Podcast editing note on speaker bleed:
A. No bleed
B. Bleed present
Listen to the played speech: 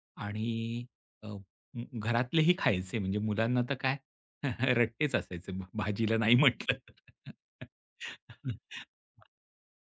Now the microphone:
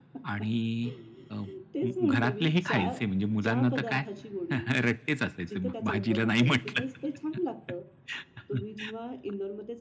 B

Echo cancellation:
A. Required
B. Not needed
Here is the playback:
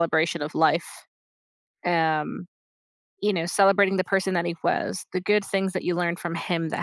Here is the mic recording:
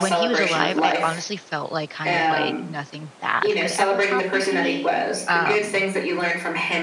A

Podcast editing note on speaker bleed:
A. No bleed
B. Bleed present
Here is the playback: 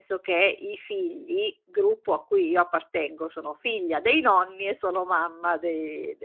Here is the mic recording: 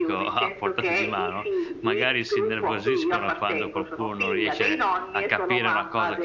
B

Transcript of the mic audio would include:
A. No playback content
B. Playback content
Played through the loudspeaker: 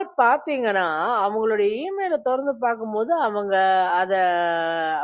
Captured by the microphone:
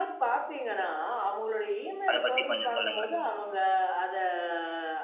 B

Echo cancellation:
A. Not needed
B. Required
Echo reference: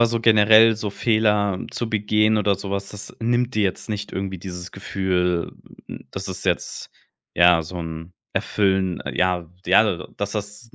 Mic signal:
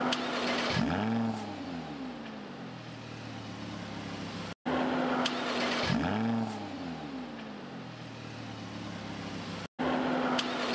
A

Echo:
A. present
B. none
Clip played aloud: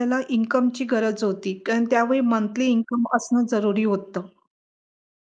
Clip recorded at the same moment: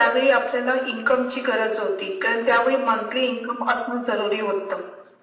A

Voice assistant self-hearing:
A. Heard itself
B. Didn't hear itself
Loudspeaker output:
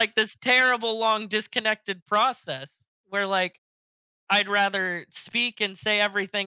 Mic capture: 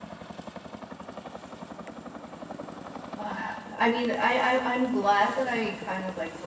B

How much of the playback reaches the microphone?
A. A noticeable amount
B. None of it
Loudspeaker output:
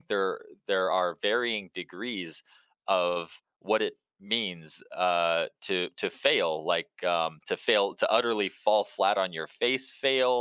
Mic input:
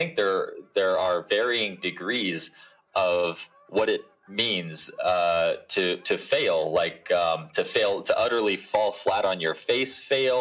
A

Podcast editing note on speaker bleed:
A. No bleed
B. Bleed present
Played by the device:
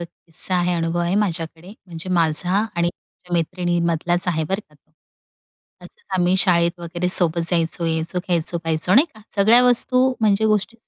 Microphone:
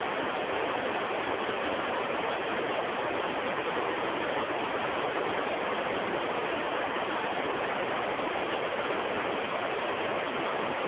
A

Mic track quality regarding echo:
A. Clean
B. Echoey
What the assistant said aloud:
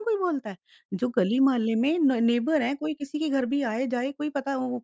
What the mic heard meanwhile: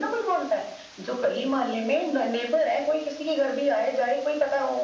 B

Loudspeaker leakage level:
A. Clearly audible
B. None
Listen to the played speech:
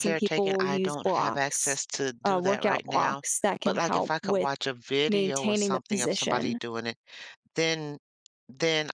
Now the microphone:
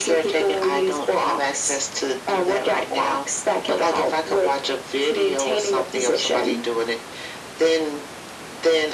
A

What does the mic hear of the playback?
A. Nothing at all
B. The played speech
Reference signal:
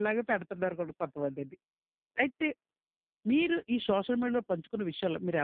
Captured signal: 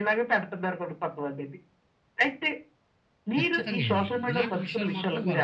B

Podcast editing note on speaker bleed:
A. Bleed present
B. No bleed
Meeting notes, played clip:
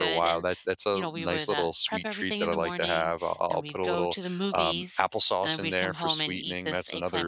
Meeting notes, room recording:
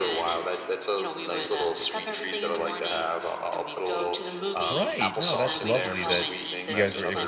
A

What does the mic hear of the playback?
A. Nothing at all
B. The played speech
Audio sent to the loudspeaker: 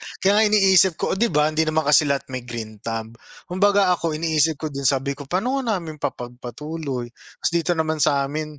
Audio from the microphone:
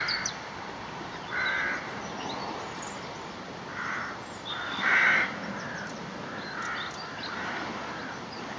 A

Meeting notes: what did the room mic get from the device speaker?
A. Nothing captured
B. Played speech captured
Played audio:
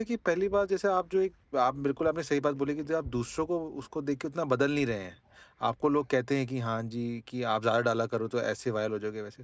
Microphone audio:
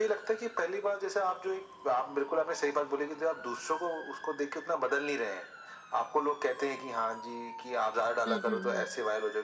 B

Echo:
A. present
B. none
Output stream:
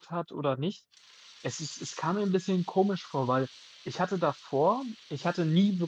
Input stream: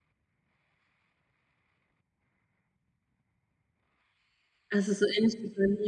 B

